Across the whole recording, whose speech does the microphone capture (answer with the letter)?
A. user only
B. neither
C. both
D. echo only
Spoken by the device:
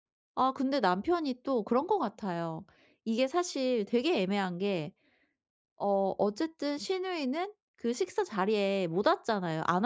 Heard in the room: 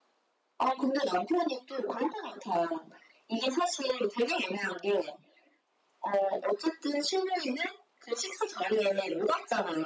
D